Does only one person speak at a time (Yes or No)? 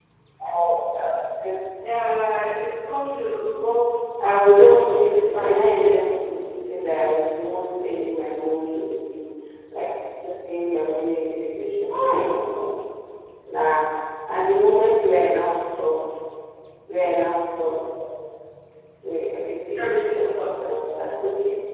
No